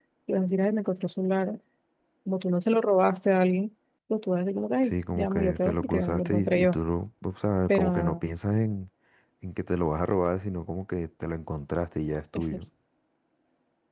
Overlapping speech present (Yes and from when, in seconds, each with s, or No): Yes, from 4.8 s